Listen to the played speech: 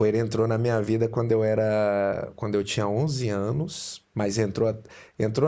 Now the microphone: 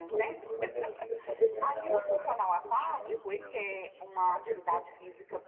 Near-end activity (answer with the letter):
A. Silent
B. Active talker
B